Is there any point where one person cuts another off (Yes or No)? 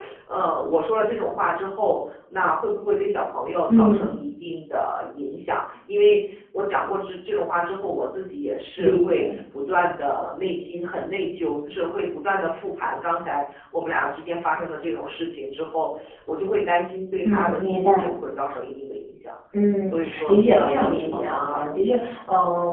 Yes